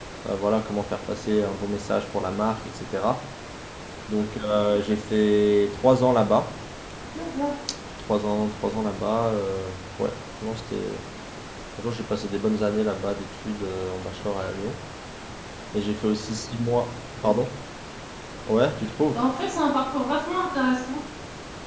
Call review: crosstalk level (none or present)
none